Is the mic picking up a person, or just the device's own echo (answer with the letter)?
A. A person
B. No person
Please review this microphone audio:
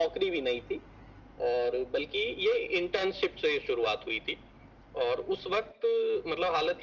B